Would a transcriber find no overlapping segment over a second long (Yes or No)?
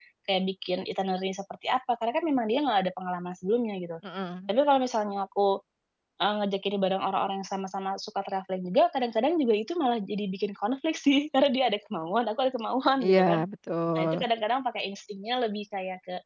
Yes